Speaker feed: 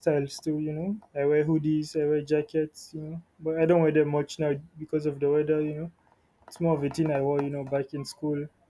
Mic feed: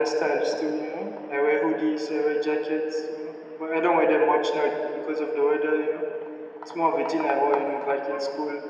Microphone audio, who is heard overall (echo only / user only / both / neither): echo only